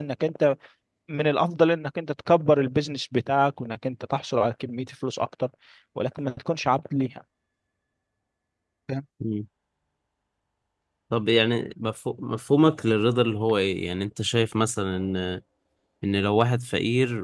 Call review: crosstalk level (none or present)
none